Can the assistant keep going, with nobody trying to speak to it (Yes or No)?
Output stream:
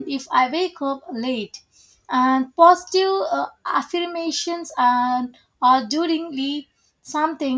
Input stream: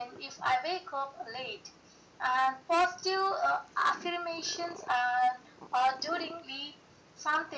Yes